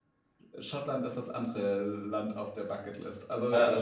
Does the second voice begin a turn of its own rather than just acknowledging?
Yes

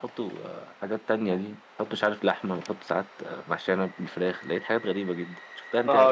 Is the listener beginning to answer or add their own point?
Yes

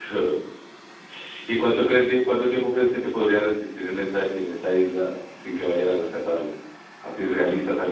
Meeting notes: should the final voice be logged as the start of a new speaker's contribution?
No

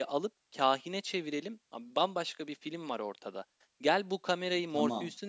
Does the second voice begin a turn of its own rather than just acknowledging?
No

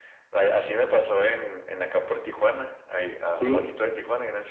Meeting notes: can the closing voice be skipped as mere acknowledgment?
Yes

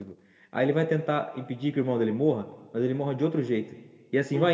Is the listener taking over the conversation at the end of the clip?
No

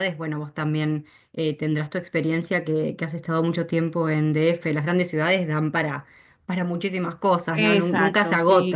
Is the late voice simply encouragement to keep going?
No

